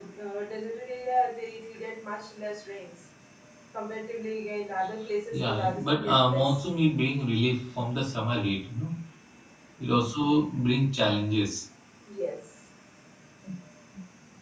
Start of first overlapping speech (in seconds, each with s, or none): 5.3 s